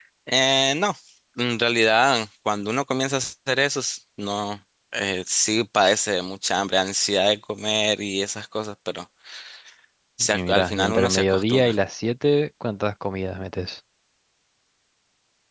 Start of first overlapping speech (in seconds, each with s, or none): 10.3 s